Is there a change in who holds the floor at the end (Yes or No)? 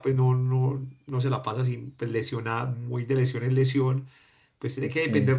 No